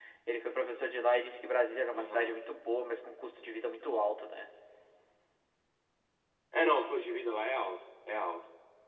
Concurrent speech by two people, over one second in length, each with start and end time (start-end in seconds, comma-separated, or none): none